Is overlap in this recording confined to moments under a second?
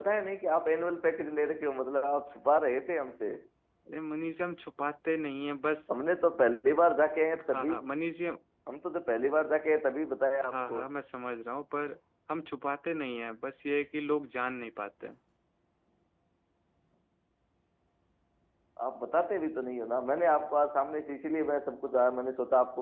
Yes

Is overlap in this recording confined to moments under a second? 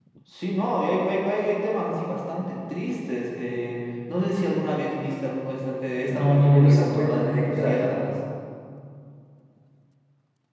No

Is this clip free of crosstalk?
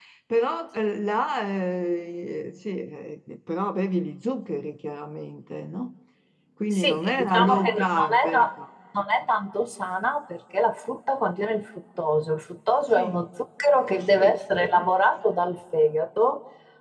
No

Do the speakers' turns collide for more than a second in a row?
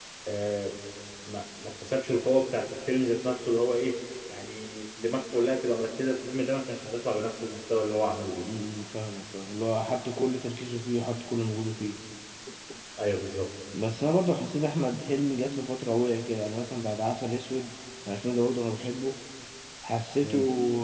No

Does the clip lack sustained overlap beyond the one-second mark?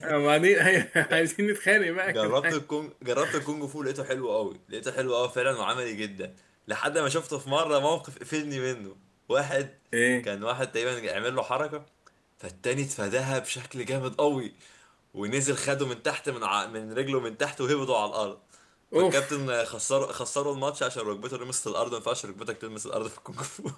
Yes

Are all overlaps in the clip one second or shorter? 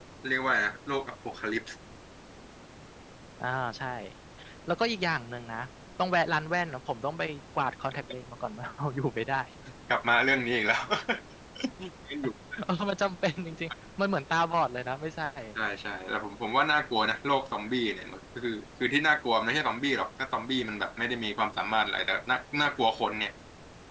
Yes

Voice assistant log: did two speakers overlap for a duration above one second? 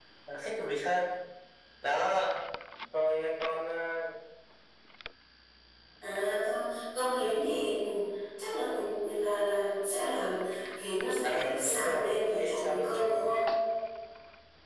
Yes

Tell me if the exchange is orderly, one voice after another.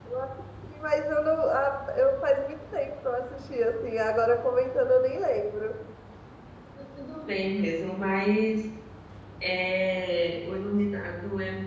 Yes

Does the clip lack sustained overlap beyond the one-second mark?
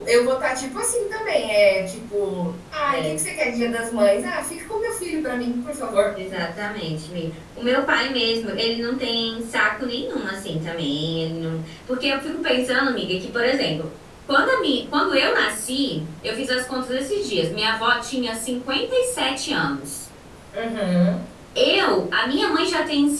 Yes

